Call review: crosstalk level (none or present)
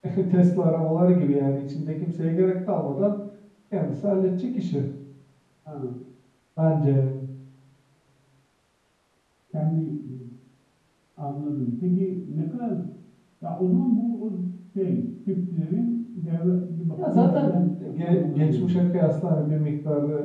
present